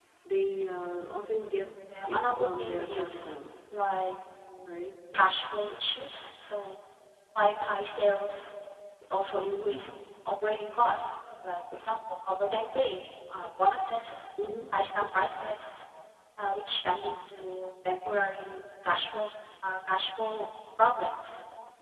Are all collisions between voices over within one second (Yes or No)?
No